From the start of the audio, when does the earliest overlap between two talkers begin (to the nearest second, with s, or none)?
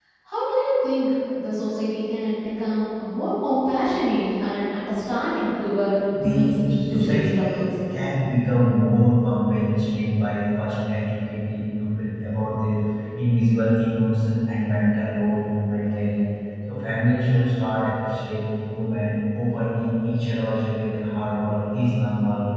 6 s